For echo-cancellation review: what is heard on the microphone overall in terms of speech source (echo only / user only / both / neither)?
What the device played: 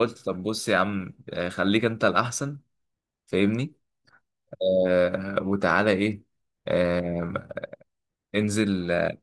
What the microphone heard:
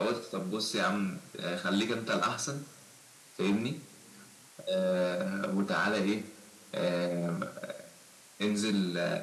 echo only